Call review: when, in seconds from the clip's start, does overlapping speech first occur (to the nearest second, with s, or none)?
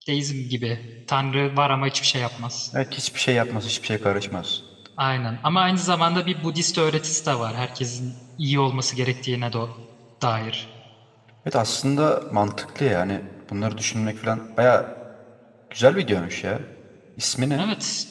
none